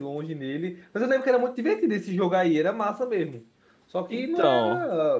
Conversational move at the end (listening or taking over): listening